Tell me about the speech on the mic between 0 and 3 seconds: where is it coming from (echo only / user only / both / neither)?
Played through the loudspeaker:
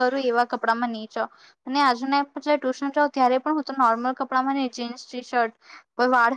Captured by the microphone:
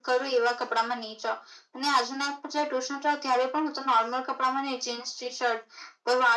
echo only